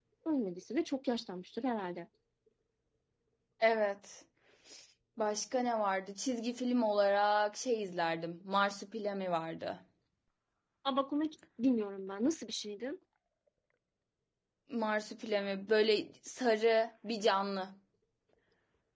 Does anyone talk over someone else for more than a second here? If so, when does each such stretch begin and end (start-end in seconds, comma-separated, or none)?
none